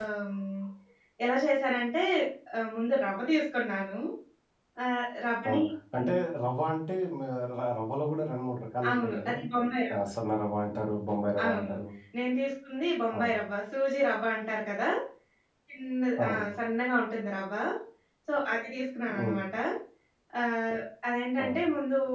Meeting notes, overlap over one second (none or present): none